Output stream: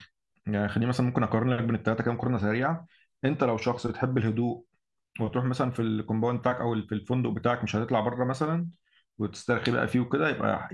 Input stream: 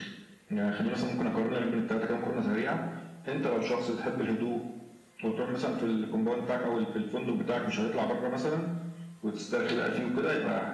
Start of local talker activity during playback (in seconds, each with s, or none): none